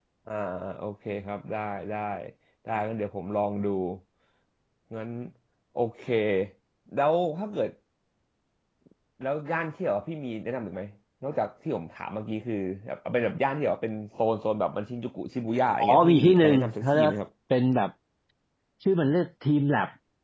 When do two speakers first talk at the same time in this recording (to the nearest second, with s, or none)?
16 s